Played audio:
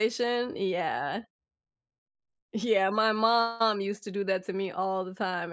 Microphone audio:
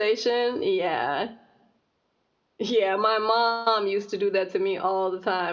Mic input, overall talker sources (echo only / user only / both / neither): echo only